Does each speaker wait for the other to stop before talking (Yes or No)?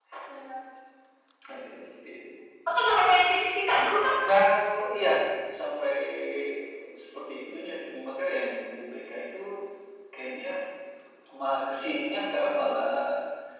Yes